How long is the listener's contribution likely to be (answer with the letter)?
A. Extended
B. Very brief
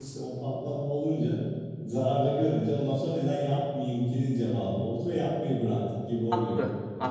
A